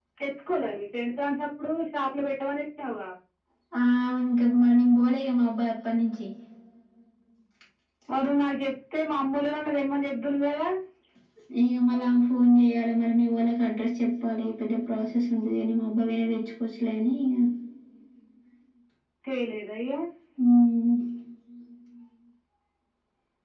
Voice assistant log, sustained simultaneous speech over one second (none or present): none